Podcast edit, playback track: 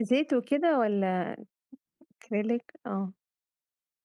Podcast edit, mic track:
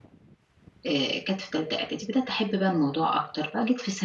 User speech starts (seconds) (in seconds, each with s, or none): 0.9 s